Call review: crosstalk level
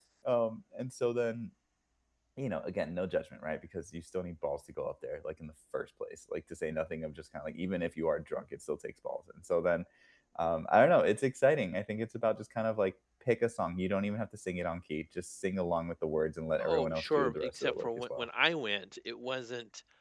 present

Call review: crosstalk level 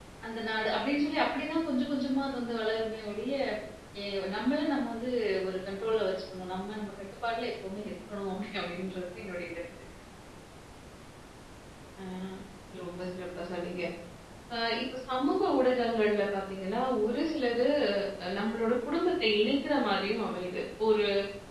none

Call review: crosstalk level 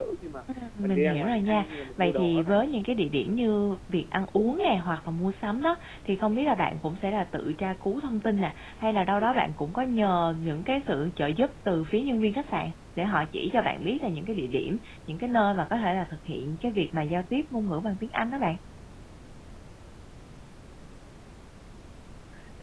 present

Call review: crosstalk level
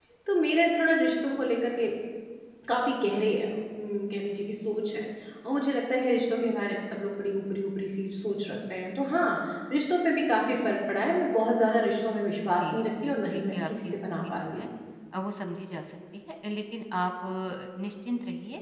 present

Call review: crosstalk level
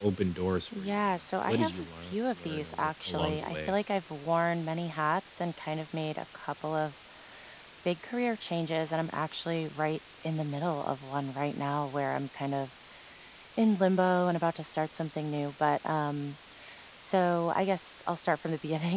present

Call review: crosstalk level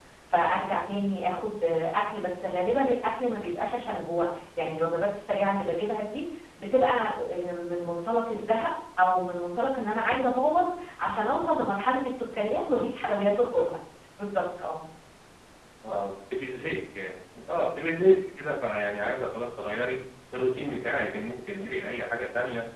none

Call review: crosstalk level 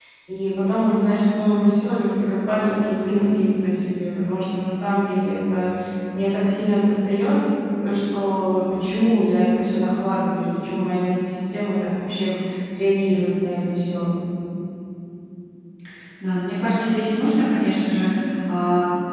none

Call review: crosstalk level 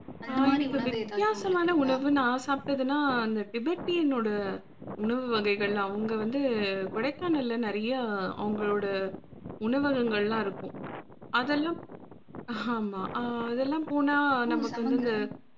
present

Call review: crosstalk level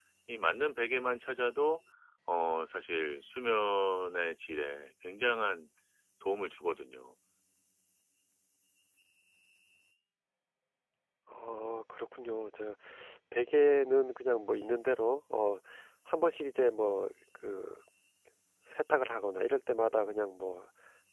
none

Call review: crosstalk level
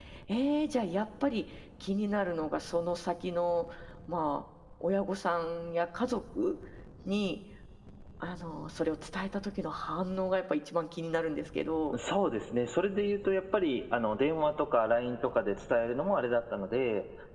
none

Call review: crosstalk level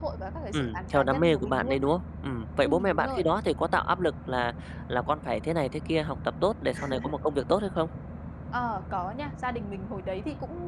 present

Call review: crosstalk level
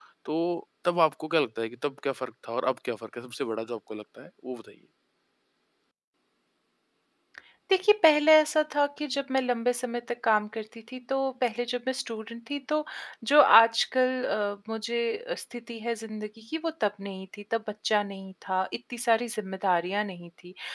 none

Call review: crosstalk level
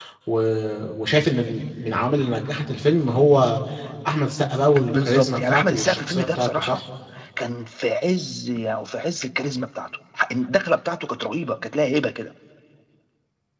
present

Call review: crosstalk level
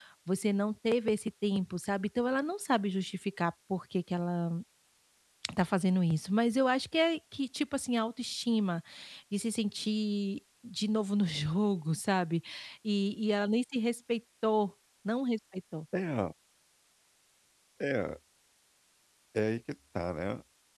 none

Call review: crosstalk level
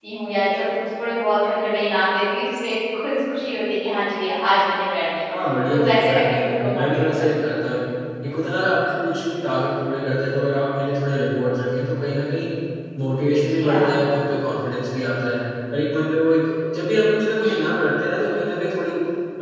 present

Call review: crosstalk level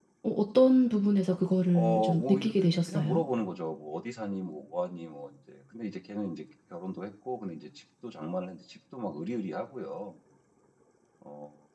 present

